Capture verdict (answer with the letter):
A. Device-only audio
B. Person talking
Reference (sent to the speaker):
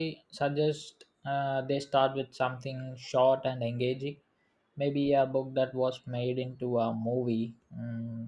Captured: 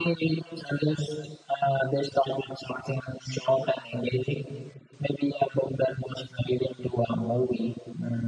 A